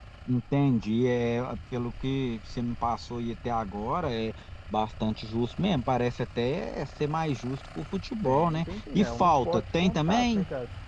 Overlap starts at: 8.2 s

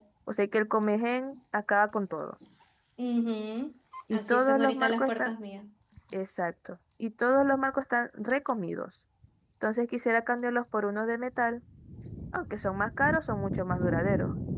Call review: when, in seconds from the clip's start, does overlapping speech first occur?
4.1 s

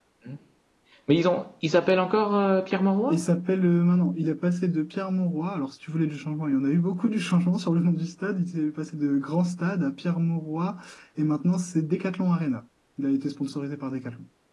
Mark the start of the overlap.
none

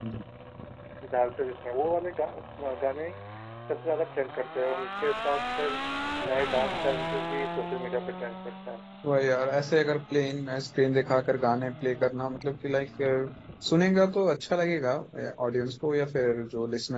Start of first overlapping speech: none

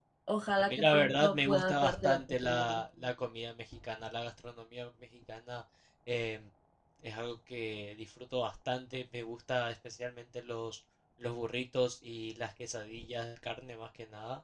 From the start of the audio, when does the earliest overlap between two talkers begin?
0.6 s

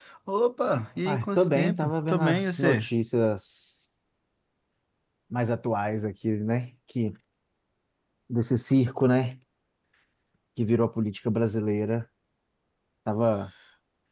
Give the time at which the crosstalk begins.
1.0 s

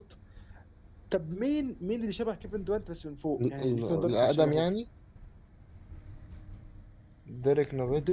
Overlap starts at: 3.4 s

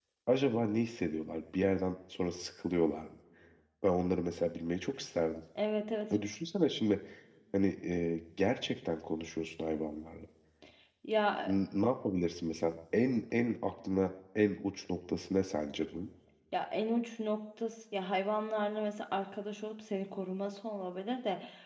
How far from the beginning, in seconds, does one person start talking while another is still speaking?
none

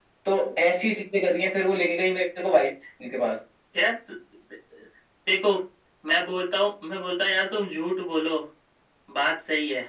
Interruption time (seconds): none

